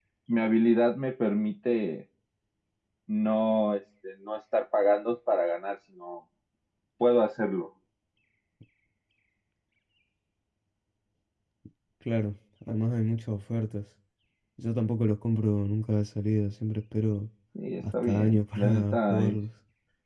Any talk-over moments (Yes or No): Yes